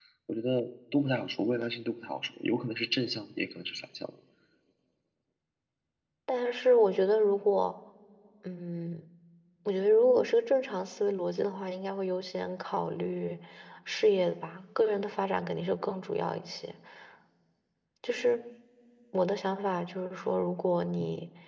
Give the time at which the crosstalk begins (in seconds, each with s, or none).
none